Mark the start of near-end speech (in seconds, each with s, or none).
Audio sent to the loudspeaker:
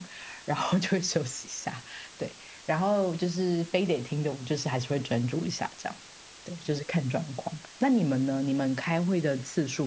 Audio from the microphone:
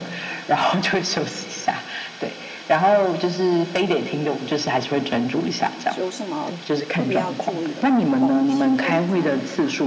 5.9 s